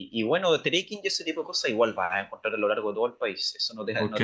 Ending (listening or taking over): taking over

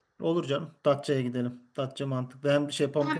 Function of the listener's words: taking over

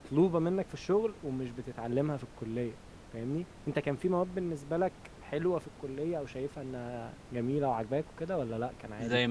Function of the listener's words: taking over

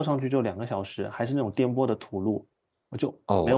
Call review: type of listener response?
taking over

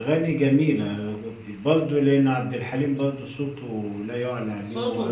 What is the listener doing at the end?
taking over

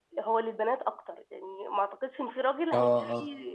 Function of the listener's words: listening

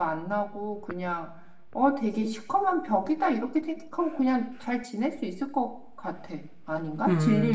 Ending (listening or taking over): taking over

